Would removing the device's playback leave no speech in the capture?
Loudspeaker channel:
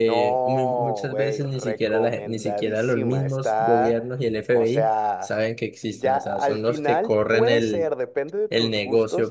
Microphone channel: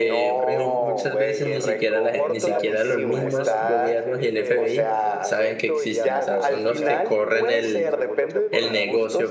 No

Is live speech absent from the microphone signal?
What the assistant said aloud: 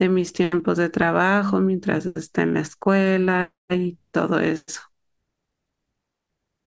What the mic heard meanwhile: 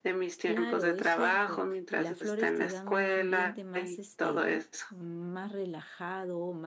No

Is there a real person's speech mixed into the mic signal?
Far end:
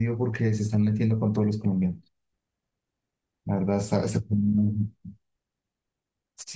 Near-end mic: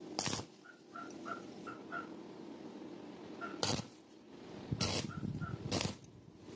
No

